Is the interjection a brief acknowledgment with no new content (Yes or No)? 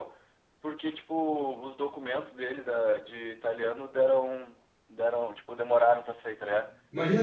Yes